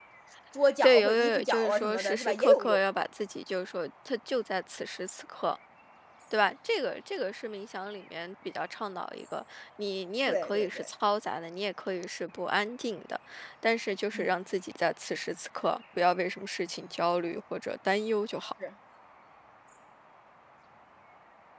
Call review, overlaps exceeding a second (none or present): present